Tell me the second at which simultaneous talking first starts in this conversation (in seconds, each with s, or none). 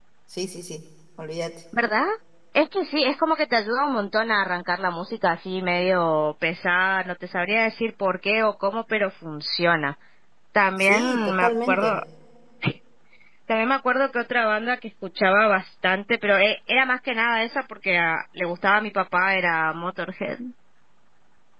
10.8 s